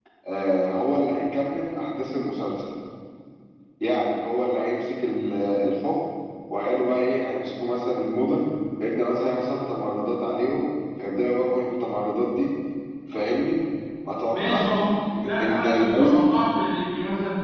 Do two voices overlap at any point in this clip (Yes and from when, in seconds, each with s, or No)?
Yes, from 14.3 s